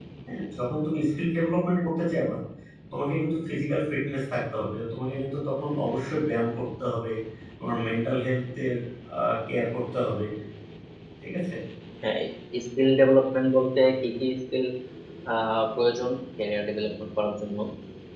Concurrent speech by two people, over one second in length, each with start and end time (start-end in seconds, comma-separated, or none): none